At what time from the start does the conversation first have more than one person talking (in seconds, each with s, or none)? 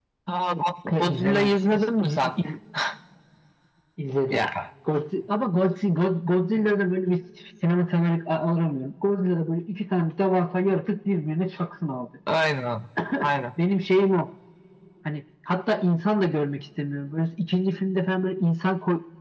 1.0 s